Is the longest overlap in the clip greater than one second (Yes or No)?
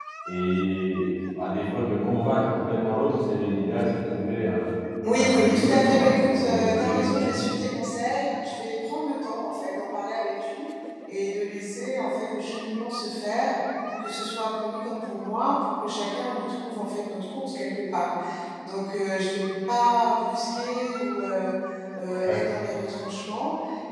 Yes